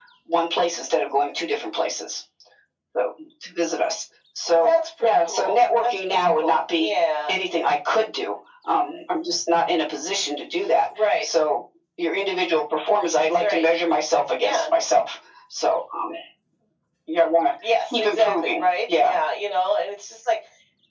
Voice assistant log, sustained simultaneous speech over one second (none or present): present